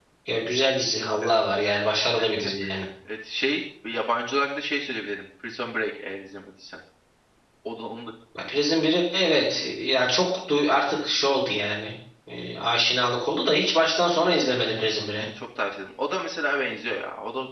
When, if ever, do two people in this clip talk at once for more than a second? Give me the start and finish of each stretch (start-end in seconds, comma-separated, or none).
none